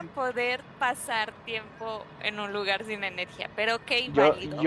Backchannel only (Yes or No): No